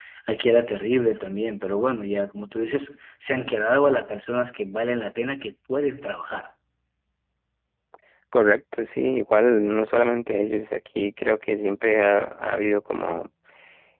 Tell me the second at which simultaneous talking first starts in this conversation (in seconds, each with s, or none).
none